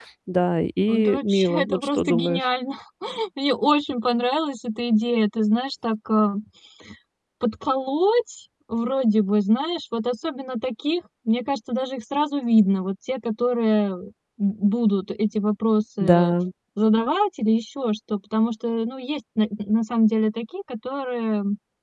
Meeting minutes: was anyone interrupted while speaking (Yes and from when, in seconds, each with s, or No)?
Yes, from 0.9 s